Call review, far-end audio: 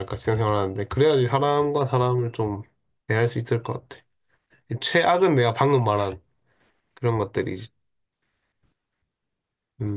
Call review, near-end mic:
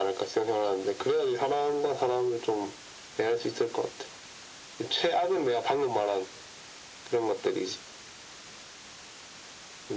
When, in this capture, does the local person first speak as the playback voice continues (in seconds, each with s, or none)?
none